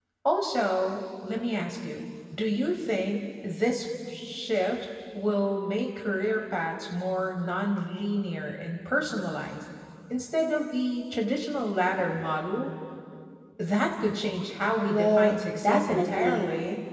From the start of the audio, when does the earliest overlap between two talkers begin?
14.9 s

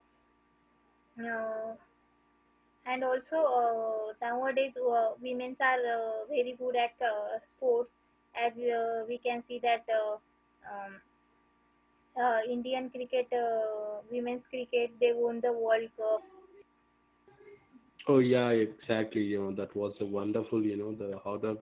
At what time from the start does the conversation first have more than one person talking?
none

